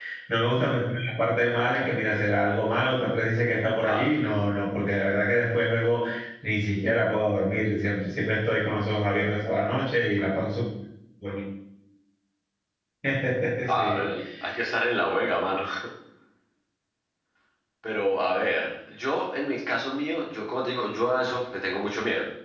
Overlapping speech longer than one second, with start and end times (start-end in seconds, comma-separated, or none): none